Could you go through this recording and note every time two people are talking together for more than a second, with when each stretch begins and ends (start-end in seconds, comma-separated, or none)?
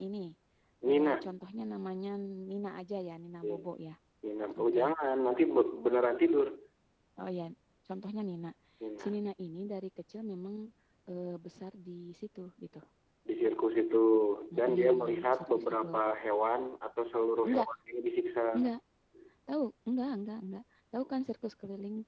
14.6-15.9